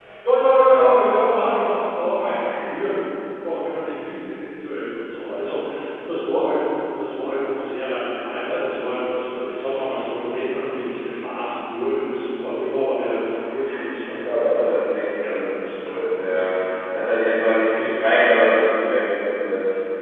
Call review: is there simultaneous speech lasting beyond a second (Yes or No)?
Yes